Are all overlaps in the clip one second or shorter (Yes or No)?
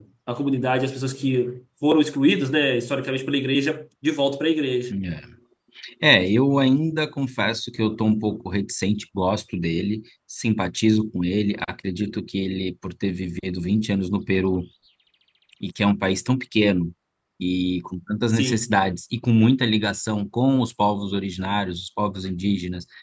Yes